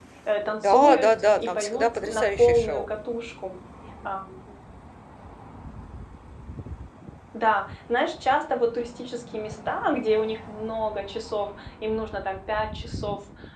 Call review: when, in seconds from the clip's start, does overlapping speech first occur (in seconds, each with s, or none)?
0.6 s